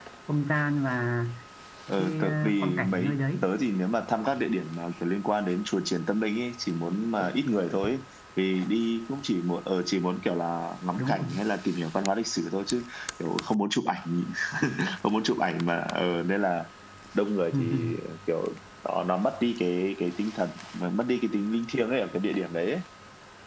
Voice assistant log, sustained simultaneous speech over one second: present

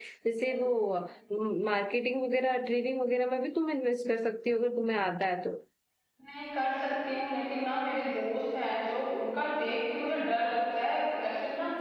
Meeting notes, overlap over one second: none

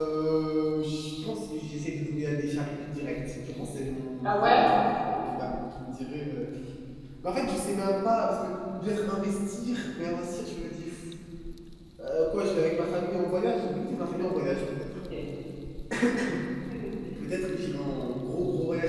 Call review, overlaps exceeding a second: none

